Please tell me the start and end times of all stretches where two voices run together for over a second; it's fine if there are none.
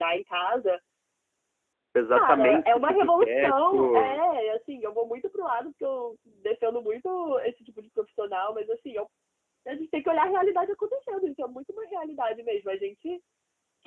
2.1-4.2

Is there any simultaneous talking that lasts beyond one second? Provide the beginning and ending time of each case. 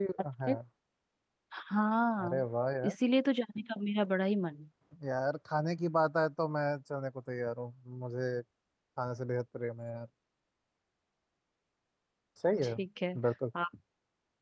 none

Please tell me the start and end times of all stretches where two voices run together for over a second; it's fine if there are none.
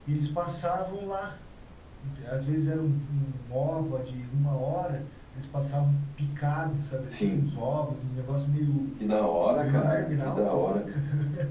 9.6-10.8

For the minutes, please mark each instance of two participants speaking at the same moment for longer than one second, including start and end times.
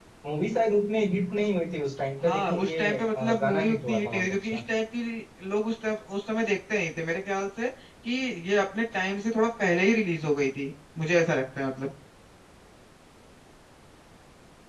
2.2-4.6

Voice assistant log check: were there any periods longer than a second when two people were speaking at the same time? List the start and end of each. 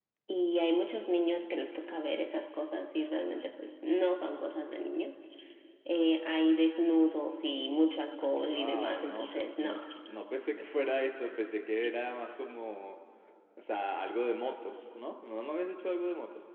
8.3-9.7

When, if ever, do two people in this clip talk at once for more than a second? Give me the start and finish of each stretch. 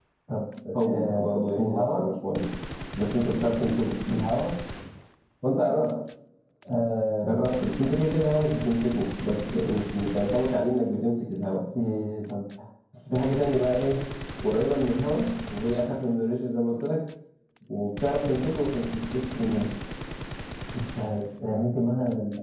0.8-2.1

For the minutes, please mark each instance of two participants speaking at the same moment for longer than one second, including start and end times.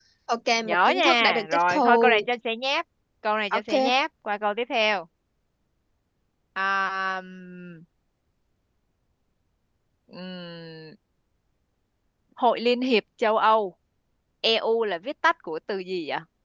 0.6-2.2

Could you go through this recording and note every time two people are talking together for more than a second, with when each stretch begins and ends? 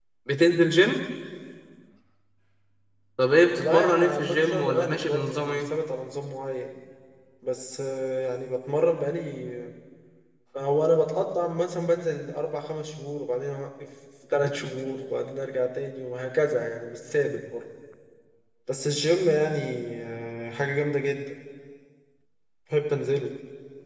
3.5-5.7

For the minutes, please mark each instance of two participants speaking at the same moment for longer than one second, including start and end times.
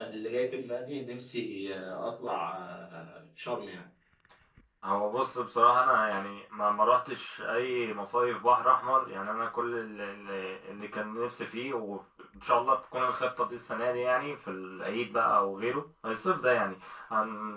none

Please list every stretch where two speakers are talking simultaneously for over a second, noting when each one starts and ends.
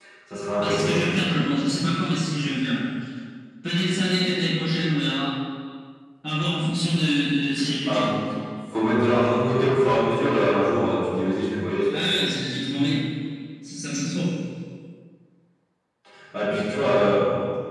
none

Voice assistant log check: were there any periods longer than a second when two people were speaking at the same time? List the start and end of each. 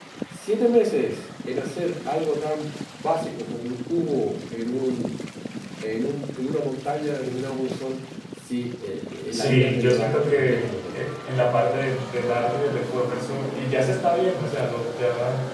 9.3-10.7

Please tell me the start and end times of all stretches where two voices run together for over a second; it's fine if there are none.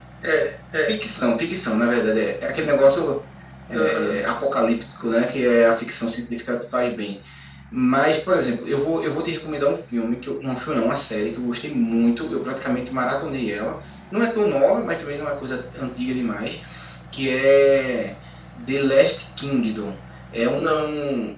none

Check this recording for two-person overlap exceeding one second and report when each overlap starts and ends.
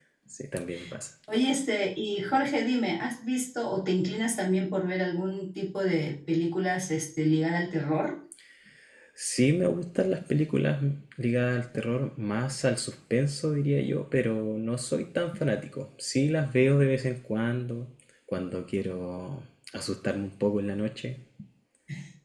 none

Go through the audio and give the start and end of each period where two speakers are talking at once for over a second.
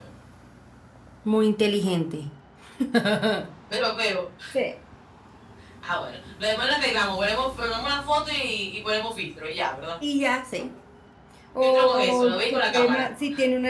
11.6-13.0

